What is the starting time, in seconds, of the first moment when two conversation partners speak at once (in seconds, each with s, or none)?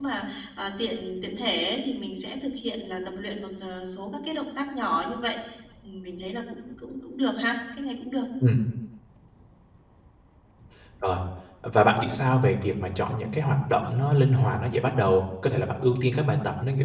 none